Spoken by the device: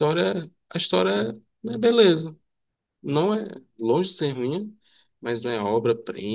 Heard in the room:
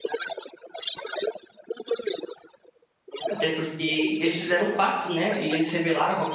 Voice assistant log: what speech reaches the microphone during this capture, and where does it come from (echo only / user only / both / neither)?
both